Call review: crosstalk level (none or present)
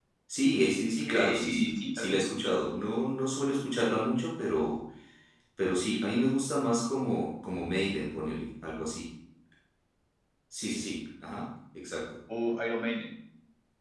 present